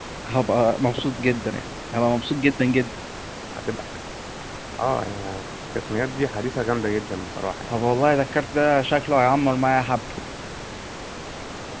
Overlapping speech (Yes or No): No